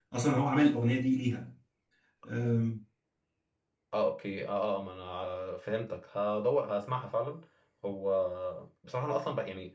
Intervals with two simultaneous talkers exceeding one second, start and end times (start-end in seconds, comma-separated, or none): none